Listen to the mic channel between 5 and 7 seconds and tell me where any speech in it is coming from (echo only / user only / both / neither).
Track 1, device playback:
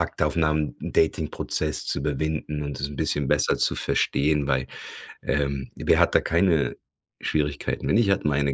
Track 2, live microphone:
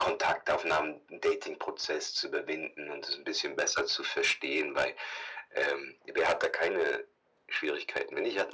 echo only